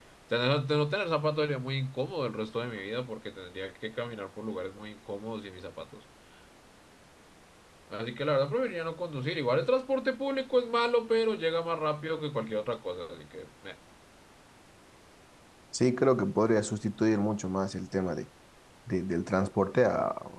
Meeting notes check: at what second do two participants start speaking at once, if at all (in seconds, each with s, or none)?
none